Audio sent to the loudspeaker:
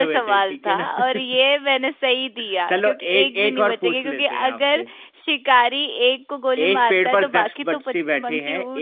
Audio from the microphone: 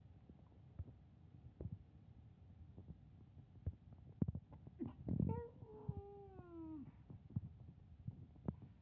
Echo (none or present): none